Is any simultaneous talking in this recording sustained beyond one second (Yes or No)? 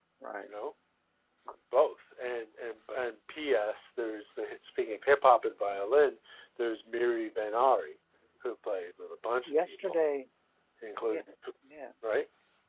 No